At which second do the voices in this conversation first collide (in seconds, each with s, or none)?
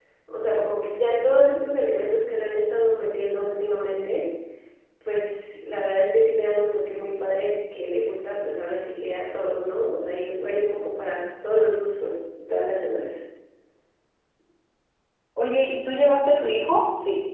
none